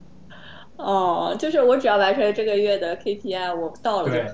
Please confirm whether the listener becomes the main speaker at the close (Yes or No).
Yes